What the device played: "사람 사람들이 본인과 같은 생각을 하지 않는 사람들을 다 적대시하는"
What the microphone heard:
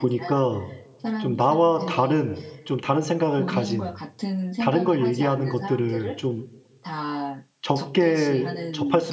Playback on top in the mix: No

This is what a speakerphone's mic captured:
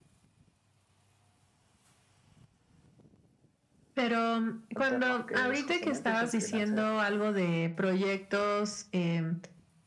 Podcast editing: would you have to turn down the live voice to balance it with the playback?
No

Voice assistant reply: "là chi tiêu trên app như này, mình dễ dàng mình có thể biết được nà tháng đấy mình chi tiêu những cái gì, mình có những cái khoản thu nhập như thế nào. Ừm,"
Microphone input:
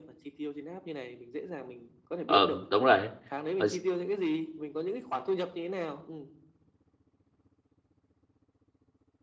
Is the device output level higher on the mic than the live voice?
No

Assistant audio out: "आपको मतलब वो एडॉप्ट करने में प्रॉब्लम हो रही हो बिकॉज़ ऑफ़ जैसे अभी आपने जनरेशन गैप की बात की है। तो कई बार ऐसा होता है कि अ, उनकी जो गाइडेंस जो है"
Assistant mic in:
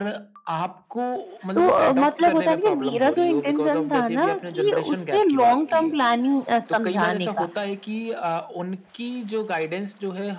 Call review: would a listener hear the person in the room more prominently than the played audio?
Yes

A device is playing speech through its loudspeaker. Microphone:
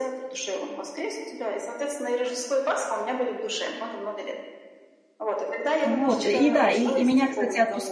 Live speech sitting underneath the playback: No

